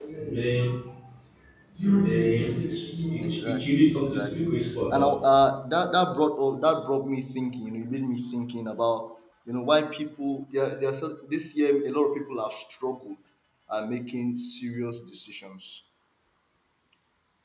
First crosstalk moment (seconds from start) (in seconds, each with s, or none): 3.2 s